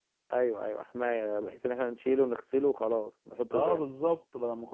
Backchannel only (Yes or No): No